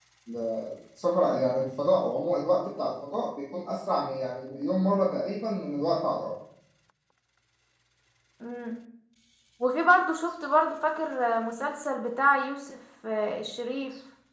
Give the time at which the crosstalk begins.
none

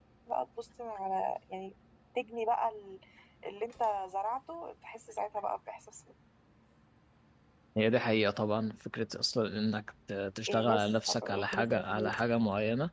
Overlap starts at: 10.5 s

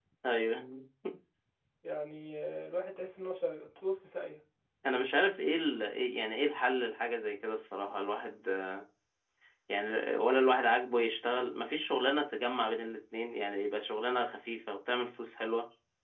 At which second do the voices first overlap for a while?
none

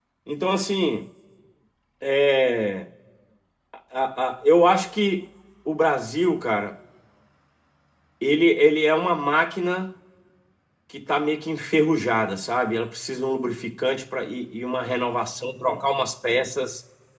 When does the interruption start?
none

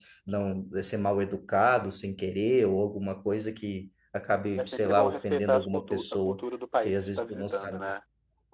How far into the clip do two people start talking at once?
4.6 s

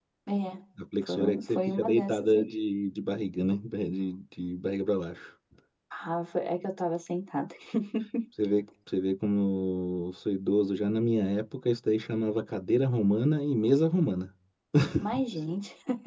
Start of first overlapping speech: 1.0 s

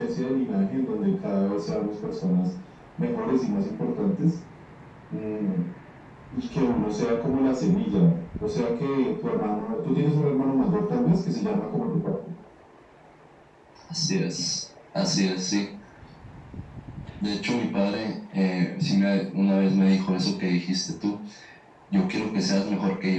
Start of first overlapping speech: none

